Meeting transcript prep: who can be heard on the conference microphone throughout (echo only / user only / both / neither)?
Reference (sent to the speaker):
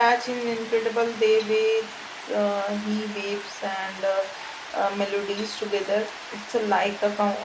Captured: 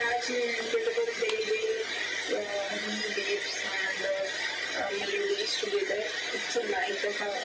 echo only